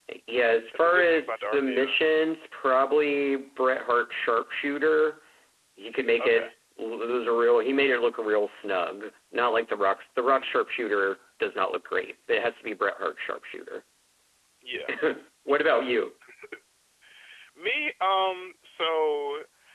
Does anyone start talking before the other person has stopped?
Yes, from 0.7 s

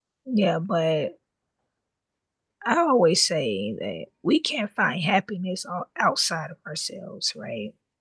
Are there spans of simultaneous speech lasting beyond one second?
No

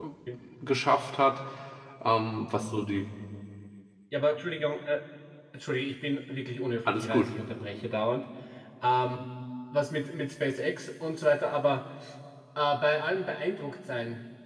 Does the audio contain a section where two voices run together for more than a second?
No

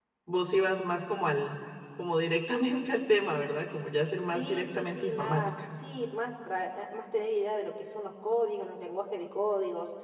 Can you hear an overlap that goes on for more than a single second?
Yes, from 4.3 s

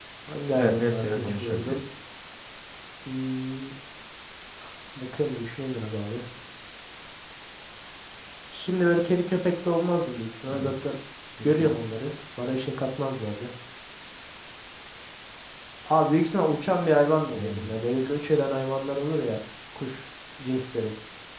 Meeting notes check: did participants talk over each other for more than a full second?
Yes, from 0.5 s

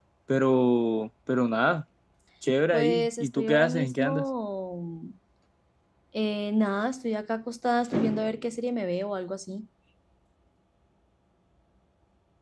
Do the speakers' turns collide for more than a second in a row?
Yes, from 2.7 s

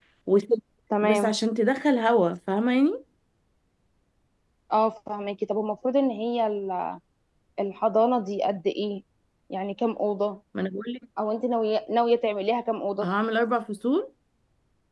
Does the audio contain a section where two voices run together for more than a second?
No

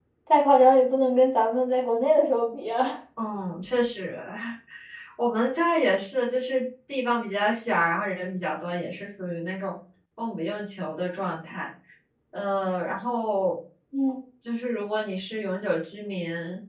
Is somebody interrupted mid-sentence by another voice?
No

